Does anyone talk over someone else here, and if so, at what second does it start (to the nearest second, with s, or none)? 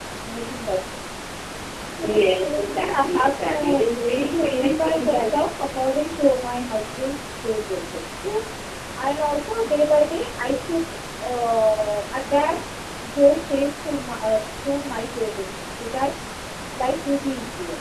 2 s